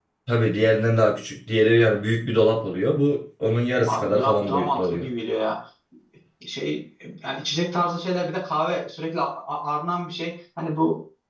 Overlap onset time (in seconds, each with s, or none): 3.9 s